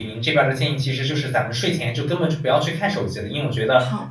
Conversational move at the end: listening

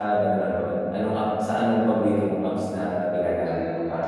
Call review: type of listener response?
taking over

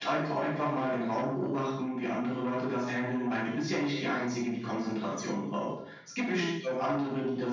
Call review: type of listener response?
listening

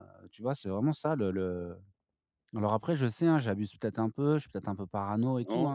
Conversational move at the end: taking over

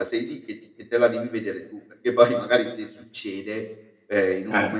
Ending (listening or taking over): listening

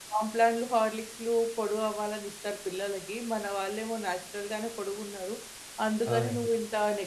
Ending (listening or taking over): listening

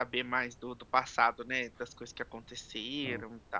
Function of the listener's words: listening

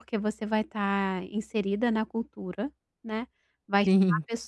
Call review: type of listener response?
listening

